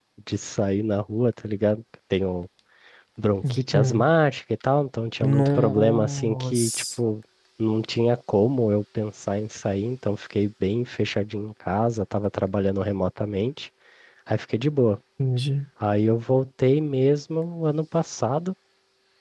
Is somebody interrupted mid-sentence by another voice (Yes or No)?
Yes